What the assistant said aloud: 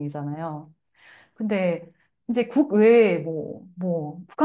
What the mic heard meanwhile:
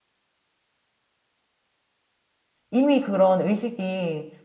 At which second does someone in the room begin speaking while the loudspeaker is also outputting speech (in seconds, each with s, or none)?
2.7 s